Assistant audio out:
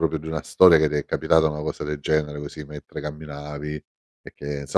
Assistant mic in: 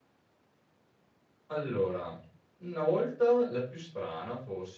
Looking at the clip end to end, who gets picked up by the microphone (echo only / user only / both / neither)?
user only